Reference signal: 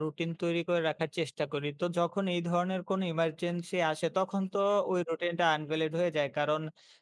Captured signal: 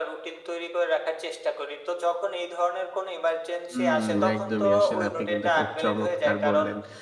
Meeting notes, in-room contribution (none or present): present